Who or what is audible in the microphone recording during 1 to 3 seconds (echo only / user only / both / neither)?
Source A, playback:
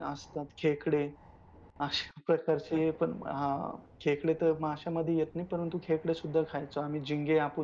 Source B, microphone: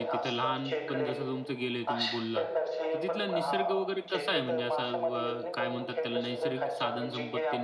both